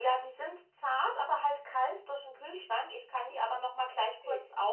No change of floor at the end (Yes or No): Yes